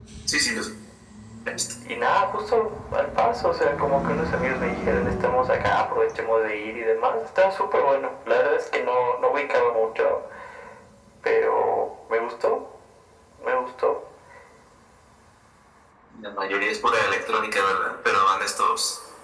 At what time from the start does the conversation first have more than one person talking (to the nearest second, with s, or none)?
none